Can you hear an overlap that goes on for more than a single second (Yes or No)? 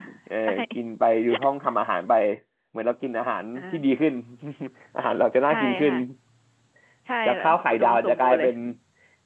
Yes